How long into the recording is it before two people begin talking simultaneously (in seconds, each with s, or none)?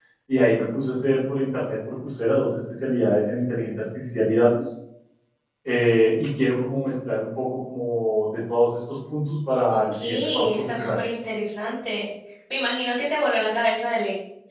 9.7 s